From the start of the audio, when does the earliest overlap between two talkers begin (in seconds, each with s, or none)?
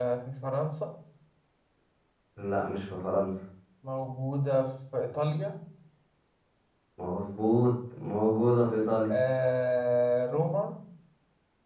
none